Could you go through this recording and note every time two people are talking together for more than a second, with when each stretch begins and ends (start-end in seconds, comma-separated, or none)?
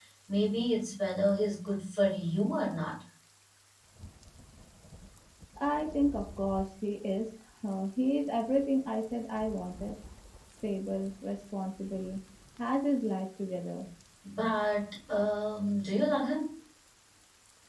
none